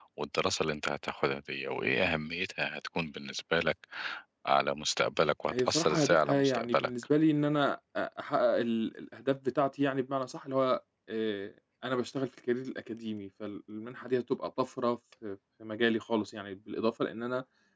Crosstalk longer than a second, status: present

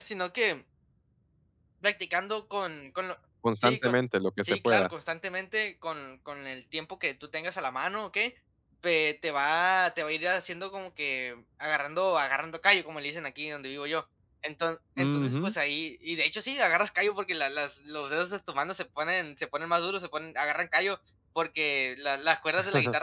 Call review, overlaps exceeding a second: none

